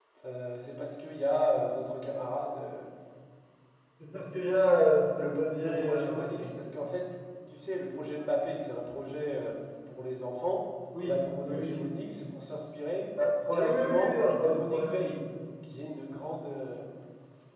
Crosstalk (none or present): present